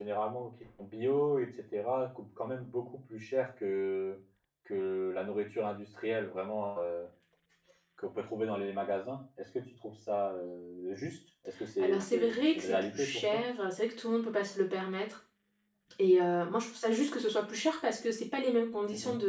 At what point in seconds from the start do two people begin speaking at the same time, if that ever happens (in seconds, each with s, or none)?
11.8 s